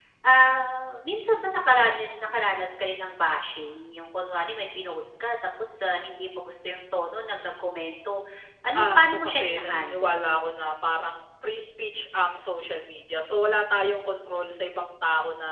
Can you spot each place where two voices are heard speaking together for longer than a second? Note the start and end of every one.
8.7-10.3

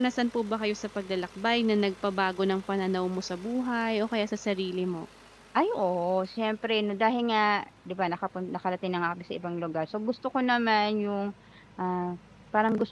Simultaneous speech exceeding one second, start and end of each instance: none

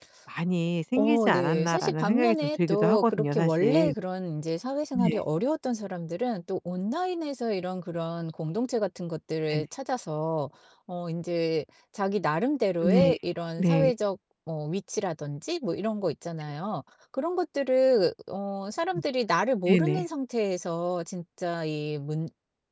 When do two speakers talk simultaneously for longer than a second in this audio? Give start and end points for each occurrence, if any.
1.0-3.9

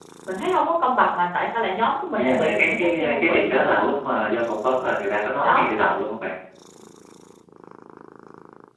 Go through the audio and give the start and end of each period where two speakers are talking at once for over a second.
2.2-3.9

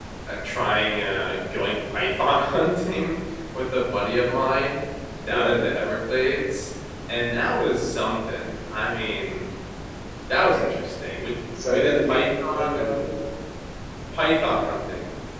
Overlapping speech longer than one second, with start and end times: 11.7-13.0

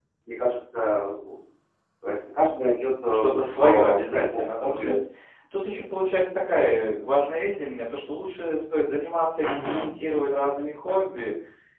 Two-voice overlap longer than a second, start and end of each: 3.1-5.0

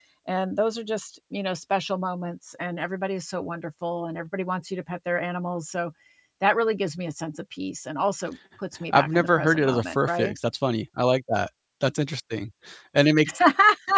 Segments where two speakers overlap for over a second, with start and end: 8.9-10.4

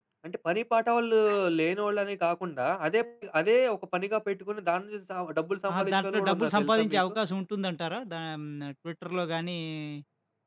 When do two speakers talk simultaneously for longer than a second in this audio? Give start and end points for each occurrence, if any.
5.8-7.0

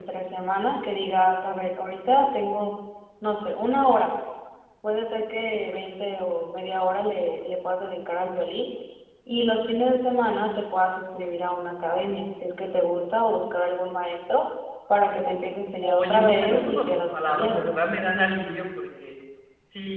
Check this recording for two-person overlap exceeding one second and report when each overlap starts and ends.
15.8-17.6

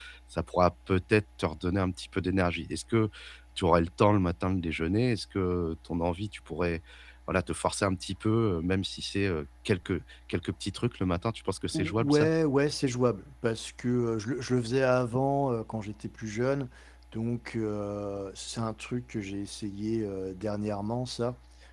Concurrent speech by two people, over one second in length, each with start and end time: none

